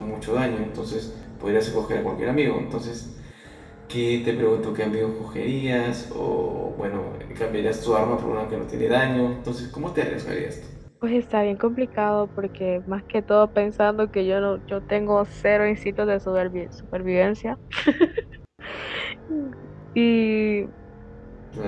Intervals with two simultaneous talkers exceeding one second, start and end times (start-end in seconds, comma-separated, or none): none